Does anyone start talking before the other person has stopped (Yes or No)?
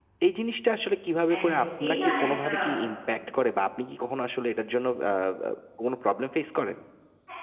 Yes